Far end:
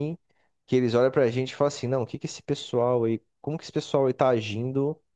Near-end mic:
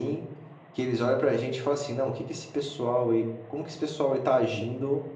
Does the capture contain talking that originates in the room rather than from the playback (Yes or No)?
No